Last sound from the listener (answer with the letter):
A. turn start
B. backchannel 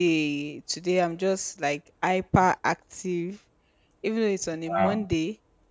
B